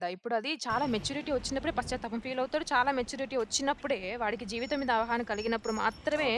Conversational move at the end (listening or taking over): taking over